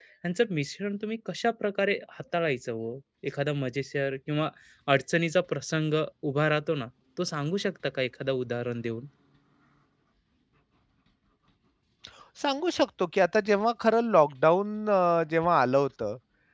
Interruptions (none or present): none